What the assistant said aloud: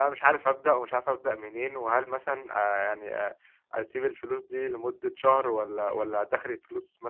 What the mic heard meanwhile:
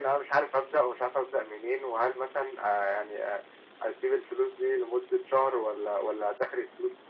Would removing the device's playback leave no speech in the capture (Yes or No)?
Yes